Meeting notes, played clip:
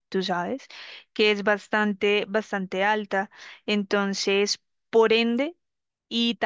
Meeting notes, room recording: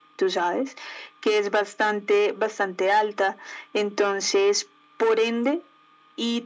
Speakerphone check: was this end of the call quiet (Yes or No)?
Yes